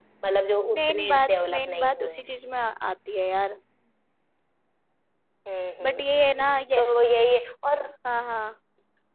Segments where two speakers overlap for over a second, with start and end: 0.7-2.4

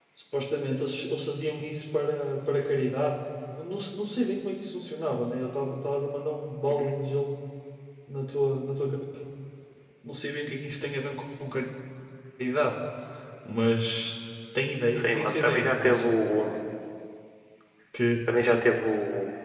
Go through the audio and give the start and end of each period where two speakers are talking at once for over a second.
14.9-16.1

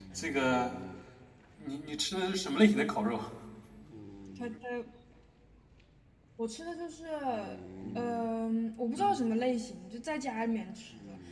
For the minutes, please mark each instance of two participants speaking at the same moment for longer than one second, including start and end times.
none

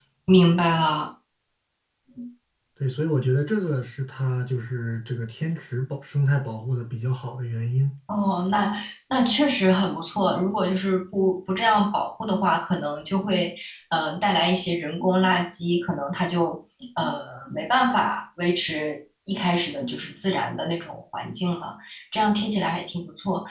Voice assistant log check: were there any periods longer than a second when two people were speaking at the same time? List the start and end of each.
none

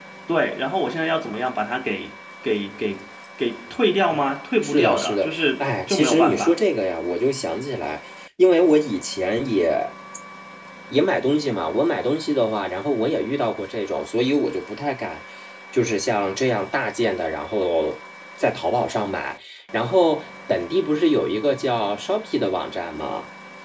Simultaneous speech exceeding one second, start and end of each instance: 4.6-6.5

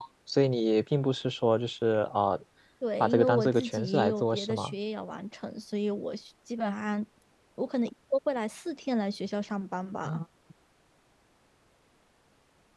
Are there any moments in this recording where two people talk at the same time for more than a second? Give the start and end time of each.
3.0-4.7

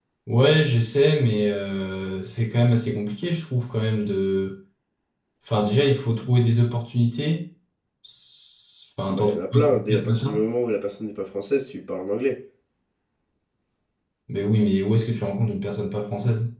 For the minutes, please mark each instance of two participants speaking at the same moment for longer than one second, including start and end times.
9.1-10.4

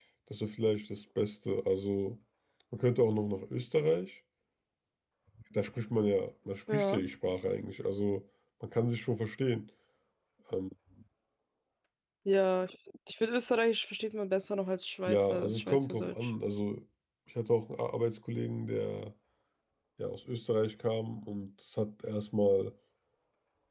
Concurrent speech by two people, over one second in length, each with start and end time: 15.1-16.3

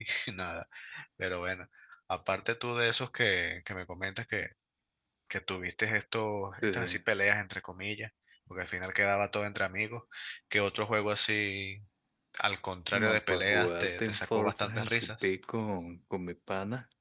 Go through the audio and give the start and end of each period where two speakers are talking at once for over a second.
12.9-15.3

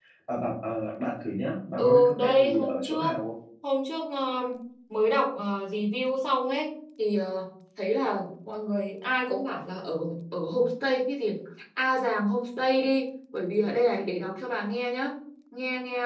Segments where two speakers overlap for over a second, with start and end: 1.8-3.1

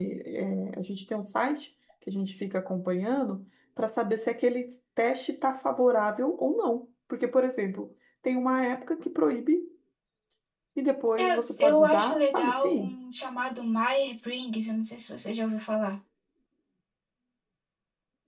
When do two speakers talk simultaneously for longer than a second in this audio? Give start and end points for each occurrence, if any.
11.2-13.0

